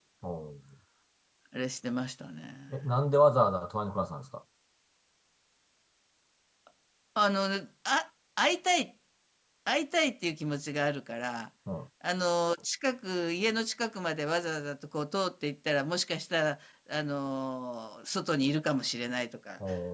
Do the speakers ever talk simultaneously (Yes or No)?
No